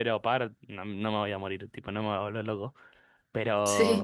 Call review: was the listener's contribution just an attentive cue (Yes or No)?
Yes